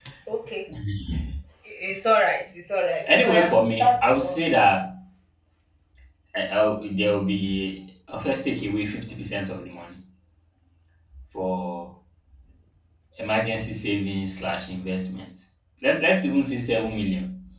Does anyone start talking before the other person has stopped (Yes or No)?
Yes